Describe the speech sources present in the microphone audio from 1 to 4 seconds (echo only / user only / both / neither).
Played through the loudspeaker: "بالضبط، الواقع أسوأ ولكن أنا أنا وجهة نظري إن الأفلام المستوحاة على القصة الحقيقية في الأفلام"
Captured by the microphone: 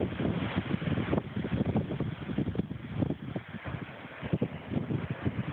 neither